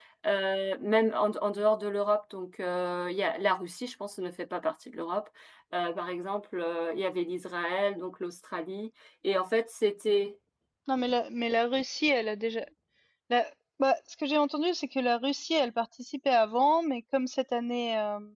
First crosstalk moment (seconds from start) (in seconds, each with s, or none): none